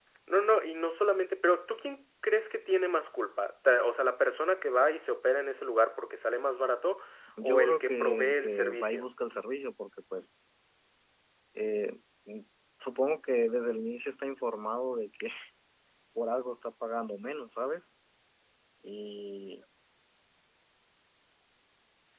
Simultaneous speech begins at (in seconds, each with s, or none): 7.4 s